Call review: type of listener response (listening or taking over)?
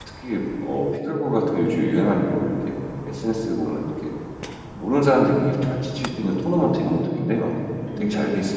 taking over